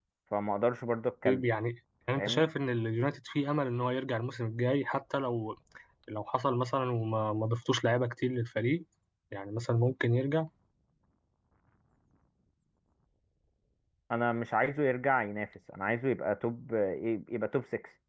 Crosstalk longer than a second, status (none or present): none